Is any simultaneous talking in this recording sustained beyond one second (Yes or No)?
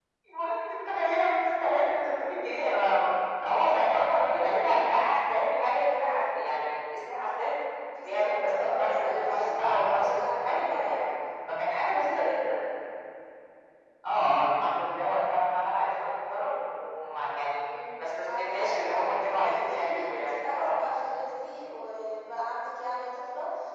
Yes